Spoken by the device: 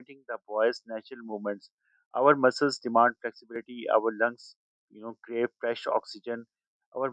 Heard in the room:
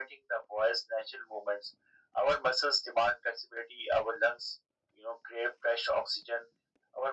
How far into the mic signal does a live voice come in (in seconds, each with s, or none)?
none